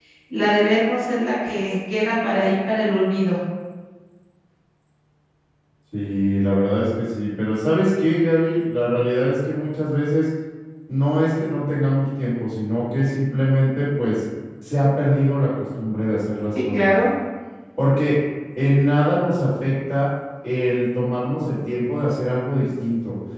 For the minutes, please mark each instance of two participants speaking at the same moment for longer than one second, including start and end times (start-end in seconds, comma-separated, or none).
none